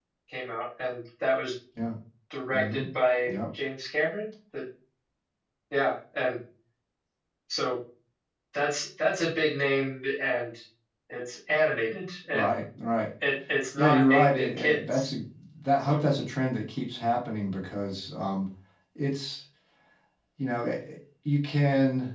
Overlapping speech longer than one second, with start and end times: 13.8-15.1

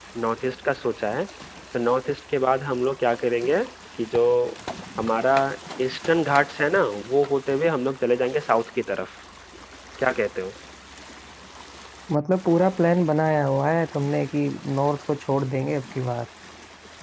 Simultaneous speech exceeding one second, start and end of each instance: none

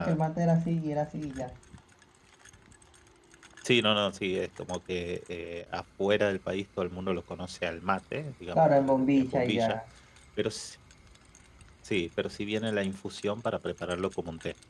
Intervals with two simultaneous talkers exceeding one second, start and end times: 8.5-9.8

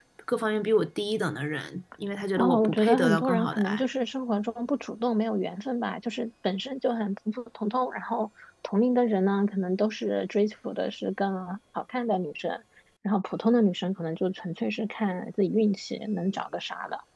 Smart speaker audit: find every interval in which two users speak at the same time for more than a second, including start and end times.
2.4-3.9

